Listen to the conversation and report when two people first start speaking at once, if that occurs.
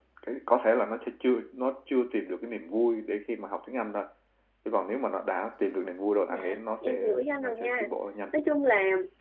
6.3 s

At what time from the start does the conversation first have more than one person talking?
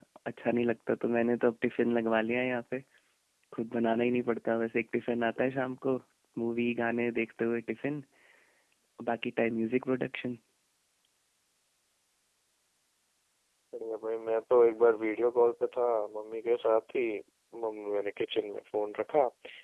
none

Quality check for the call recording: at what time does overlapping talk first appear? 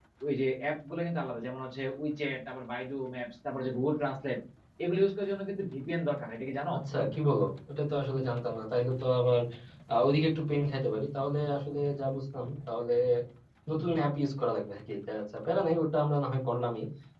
none

